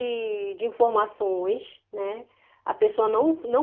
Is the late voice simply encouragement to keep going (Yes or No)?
Yes